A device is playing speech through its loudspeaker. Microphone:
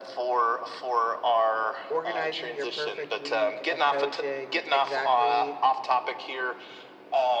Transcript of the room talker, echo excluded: organizing your perfect week of coaching, exactly

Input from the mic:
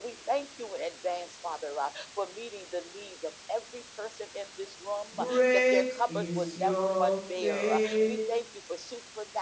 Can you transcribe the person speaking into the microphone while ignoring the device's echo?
great is your faithfulness.

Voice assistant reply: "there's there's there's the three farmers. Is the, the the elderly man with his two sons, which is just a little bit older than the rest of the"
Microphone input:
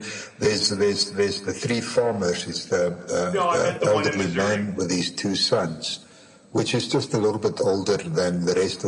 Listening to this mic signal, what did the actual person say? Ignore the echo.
No, I meant the one in Missouri.

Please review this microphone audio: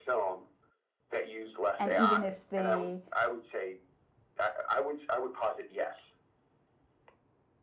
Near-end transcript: And even if they

